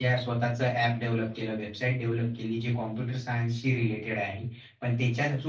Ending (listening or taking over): listening